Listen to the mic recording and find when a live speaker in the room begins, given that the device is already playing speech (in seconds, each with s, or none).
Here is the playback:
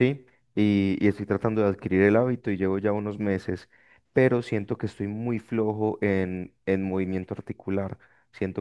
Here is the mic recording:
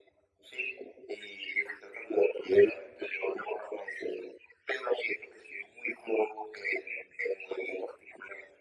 none